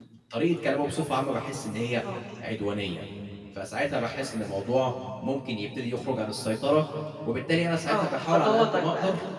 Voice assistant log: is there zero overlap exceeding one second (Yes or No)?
No